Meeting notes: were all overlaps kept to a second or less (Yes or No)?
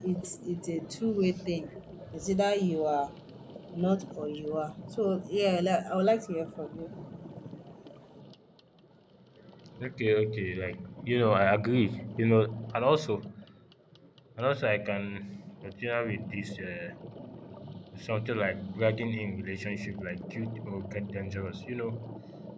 Yes